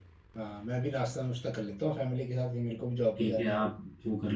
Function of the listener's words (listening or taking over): taking over